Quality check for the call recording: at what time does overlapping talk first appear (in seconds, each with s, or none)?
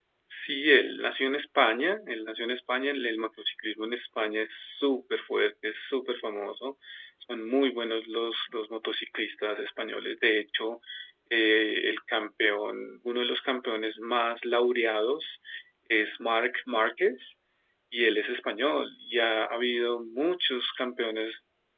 none